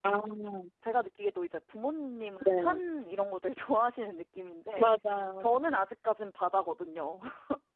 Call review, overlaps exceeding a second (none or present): none